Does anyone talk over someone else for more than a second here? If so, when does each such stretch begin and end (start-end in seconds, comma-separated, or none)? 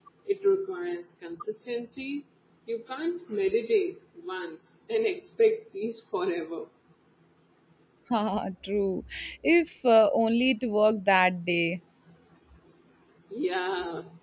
none